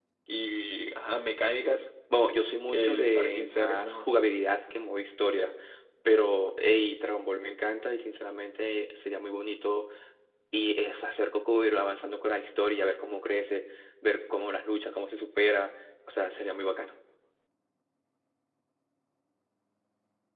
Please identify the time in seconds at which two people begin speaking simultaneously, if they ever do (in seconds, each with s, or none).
2.7 s